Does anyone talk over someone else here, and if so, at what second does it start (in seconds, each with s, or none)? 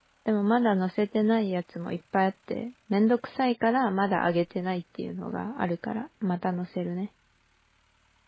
none